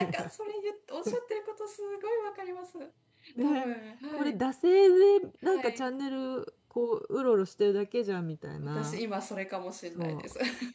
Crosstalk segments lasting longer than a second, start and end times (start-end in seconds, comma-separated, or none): none